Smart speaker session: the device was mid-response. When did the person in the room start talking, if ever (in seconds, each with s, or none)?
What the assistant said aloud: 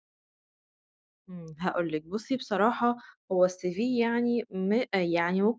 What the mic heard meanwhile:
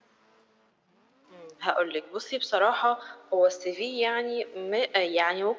none